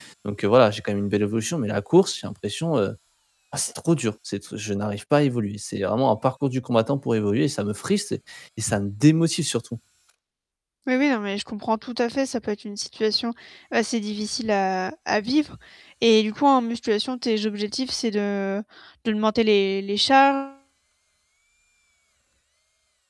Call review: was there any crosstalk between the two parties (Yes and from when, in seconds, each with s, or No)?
No